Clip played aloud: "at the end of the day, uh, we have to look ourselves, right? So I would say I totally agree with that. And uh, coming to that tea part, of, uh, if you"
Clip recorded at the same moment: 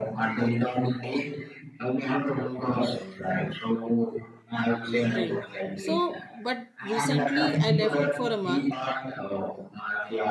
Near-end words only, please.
drink. So, but recently I left it for a month,

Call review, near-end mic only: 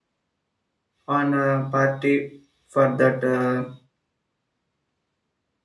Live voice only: on a party for that uh,

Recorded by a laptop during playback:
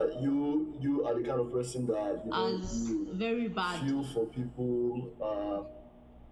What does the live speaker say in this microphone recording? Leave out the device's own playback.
as very bad

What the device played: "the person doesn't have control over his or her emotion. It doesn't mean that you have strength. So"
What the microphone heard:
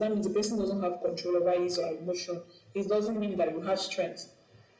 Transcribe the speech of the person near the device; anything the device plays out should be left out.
none

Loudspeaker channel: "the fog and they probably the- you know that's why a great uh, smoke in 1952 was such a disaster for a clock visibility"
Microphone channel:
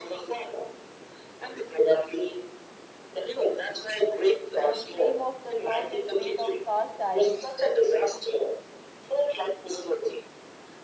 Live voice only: The frame of the clock is made of cast iron,

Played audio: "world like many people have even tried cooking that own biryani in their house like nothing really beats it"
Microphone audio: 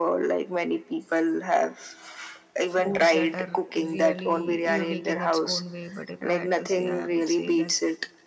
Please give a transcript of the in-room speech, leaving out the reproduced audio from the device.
foods that are really unique in its own way. But if I had to say, I would say that

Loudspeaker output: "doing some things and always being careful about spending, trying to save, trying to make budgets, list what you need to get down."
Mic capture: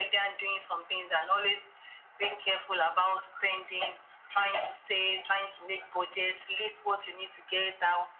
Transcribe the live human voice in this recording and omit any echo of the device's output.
none

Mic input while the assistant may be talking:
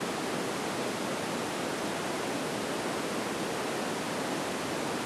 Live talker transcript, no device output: none

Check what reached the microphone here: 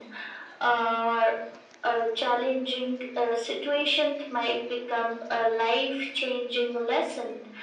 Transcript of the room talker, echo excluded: none

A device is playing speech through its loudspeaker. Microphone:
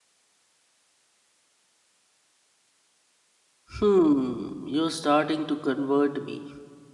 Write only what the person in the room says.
Hmm, you're starting to convert me.

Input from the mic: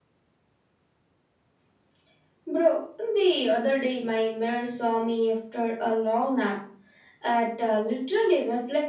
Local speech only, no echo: none

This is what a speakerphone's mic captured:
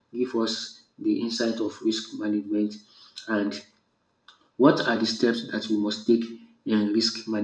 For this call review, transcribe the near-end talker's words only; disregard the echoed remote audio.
none

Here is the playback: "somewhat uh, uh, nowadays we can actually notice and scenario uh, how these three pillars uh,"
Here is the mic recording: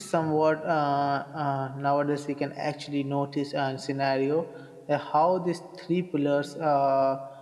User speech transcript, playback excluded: none

